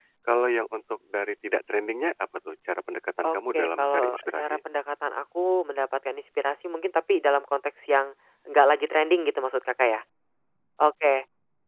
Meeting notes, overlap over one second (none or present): present